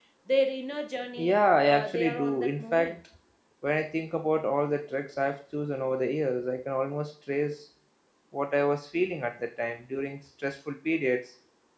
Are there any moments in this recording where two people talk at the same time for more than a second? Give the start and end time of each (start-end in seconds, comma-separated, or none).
1.2-3.0